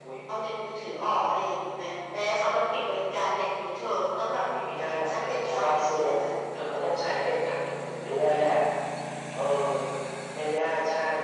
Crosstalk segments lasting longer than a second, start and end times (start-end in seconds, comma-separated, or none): 4.9-6.1